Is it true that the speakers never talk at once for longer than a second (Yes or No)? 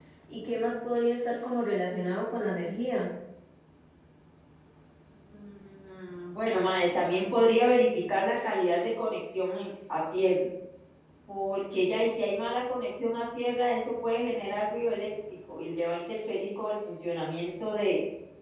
Yes